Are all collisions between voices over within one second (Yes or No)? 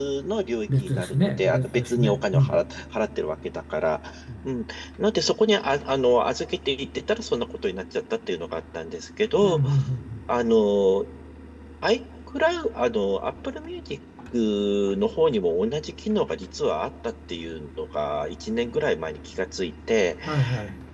No